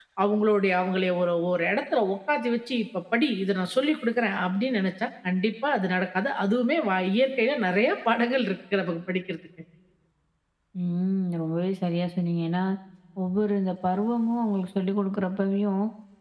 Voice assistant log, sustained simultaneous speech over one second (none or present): none